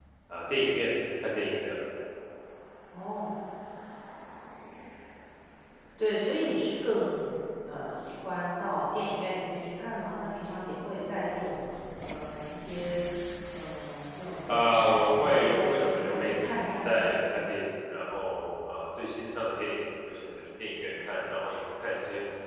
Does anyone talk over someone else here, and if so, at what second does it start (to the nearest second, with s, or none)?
14 s